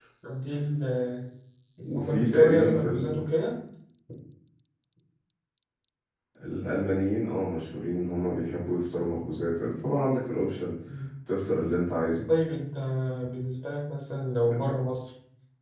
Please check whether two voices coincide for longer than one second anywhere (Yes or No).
Yes